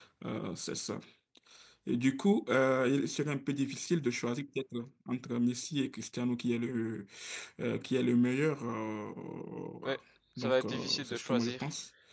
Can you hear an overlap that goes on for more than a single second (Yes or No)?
Yes